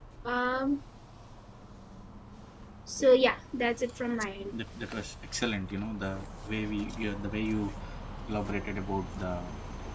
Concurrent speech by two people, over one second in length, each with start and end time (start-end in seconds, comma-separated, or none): none